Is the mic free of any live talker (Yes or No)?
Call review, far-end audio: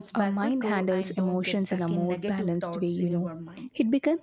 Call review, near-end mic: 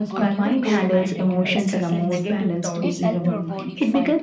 No